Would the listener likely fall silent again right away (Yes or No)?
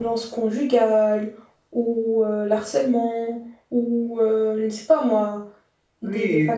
No